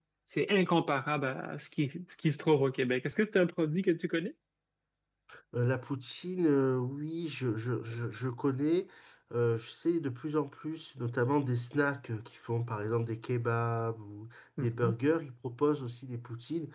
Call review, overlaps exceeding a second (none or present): none